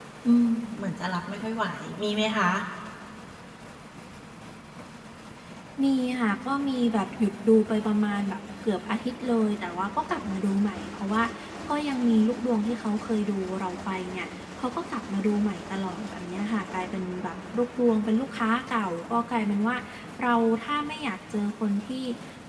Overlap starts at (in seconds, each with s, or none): none